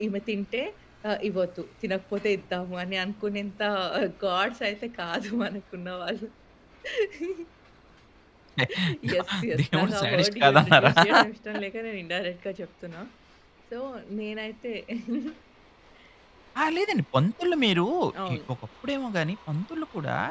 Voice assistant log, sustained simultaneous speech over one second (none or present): present